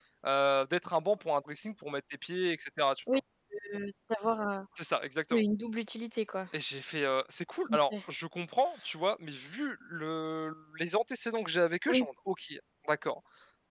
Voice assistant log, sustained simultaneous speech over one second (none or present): none